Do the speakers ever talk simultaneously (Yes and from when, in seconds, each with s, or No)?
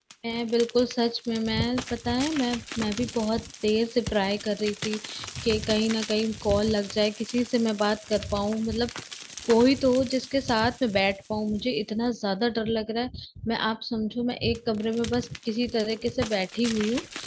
No